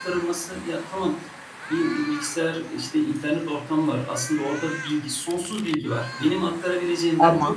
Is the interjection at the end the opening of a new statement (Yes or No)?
No